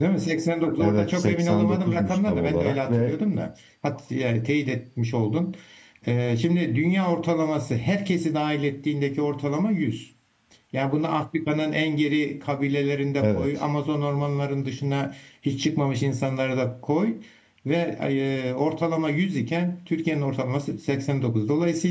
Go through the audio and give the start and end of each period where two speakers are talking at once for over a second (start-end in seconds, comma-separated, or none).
0.8-3.2